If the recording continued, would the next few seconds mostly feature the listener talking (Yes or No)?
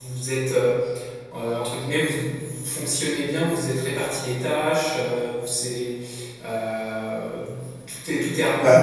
No